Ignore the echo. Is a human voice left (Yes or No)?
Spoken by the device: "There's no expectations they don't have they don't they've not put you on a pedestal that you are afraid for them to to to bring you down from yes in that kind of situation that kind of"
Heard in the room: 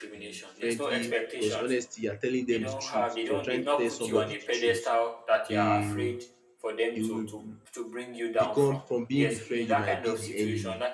Yes